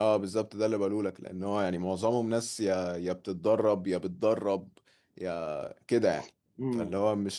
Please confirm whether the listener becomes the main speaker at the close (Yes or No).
Yes